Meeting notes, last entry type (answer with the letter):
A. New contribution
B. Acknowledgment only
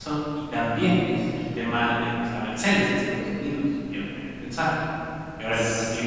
B